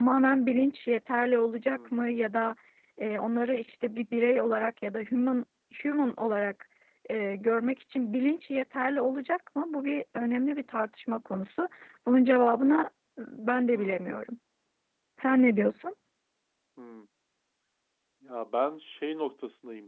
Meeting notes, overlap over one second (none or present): none